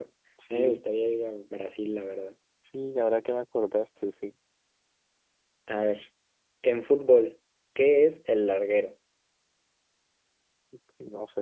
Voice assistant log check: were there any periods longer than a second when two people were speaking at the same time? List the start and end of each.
none

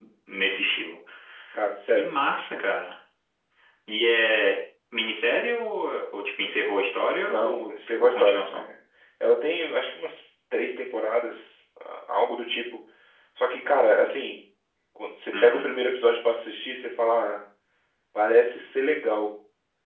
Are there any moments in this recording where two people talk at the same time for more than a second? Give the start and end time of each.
7.3-8.6

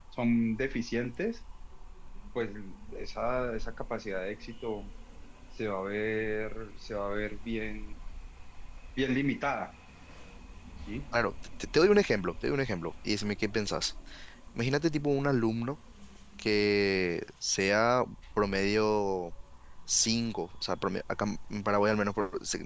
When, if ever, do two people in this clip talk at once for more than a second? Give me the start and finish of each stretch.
none

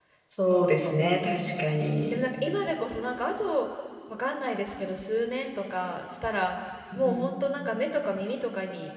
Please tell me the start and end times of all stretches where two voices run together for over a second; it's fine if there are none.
none

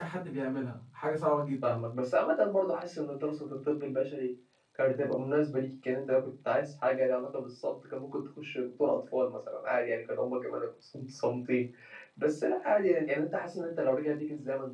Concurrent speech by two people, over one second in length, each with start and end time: none

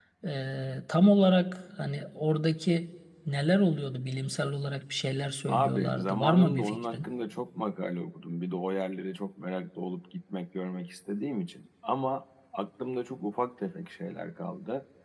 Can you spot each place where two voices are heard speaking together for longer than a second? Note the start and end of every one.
5.5-7.0

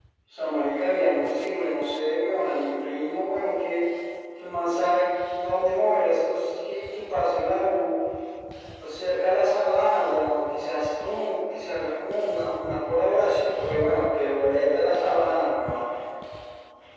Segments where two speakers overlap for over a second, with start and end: none

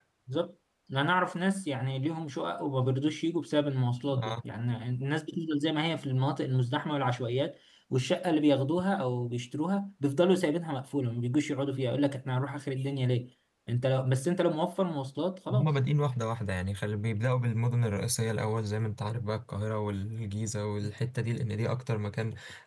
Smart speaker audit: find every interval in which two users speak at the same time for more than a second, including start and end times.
none

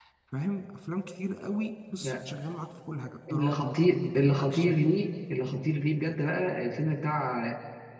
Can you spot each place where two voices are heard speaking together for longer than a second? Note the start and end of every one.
3.3-4.8

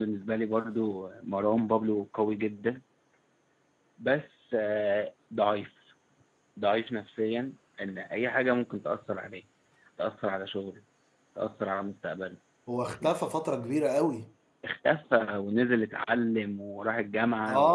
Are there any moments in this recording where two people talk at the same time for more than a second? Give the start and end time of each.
none

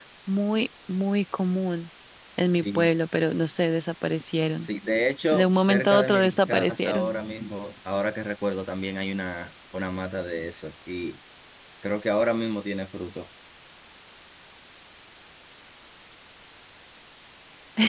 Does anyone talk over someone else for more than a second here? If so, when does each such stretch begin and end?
5.3-7.1

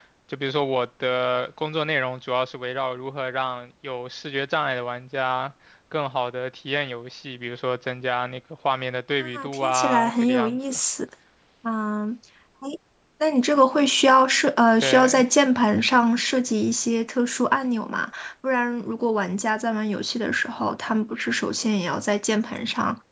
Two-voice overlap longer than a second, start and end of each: 9.3-10.8

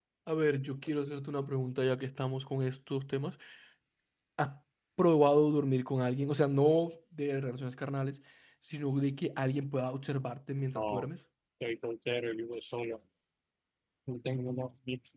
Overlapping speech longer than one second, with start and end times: none

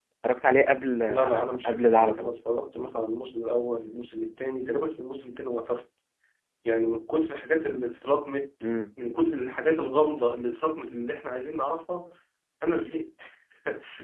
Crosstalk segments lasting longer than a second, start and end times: 1.1-2.4

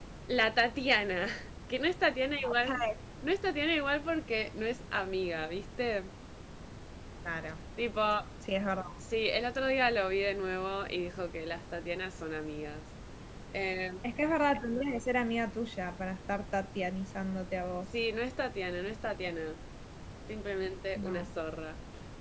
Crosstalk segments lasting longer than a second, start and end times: none

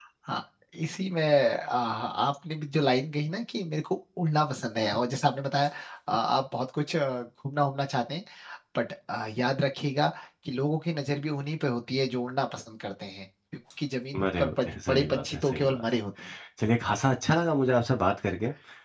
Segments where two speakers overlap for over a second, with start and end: 14.2-15.8

